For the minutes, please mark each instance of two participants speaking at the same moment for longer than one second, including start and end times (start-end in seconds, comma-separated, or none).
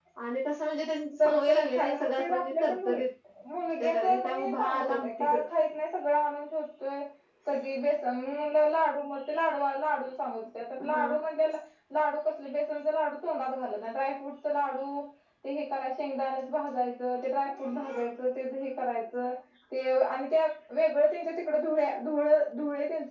1.2-3.0, 3.8-5.4